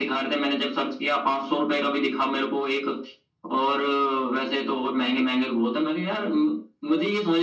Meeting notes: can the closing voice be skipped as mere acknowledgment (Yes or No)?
Yes